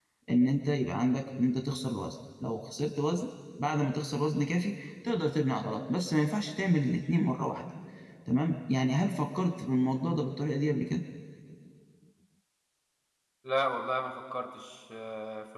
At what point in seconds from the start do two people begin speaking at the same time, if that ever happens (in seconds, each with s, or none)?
none